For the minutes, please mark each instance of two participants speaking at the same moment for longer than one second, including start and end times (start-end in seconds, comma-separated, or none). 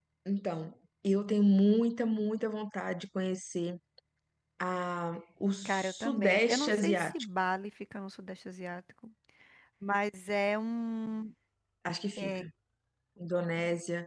5.6-7.1